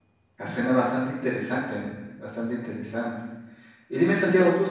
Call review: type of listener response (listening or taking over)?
listening